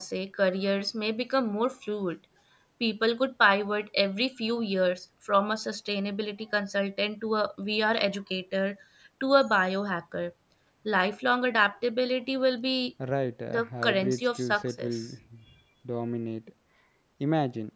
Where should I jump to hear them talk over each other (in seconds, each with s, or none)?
13.5 s